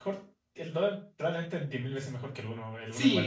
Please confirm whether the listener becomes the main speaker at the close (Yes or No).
Yes